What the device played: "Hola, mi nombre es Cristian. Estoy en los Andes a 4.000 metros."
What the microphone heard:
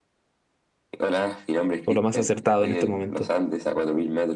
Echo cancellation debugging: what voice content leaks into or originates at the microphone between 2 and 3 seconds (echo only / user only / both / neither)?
both